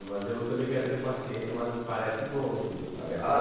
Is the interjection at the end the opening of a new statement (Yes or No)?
Yes